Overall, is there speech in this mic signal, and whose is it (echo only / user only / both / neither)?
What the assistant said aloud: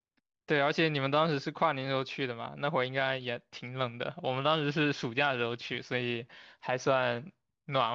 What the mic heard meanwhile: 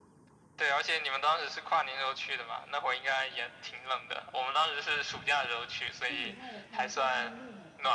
both